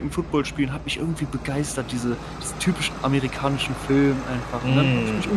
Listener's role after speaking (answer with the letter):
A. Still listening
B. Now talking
B